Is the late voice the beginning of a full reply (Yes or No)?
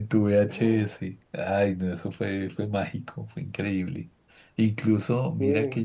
No